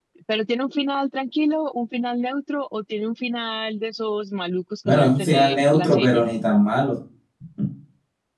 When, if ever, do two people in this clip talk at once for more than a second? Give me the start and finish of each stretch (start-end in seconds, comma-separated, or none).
4.8-6.2